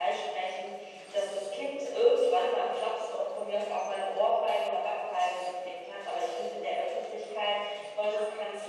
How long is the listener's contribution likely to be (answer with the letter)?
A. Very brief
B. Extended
A